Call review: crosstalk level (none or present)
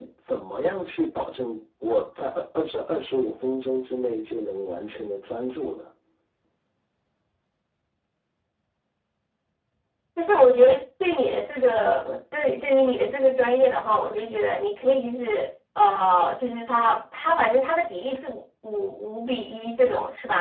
none